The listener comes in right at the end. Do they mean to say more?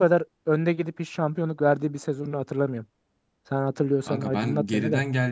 Yes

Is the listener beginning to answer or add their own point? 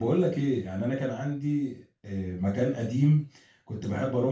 No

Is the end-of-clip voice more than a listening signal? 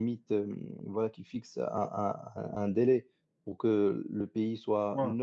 No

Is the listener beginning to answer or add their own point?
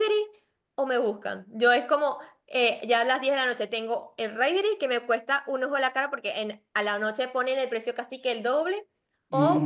No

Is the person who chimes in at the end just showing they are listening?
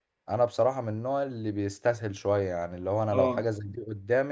Yes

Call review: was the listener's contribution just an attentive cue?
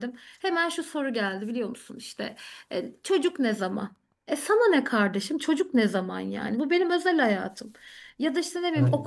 Yes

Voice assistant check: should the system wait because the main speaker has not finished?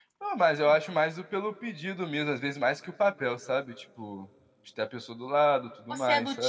No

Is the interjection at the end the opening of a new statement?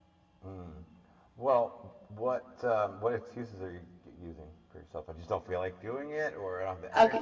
Yes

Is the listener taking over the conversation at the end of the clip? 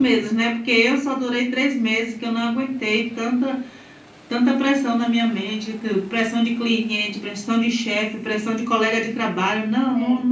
No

